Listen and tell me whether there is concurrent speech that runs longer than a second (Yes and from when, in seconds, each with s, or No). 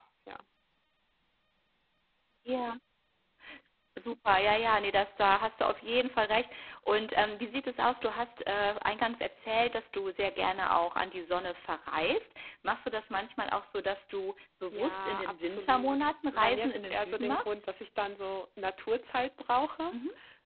Yes, from 14.7 s